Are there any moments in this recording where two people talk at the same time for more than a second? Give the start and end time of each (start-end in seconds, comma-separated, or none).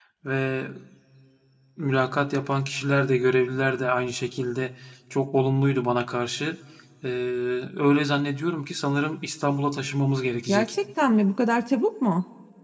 none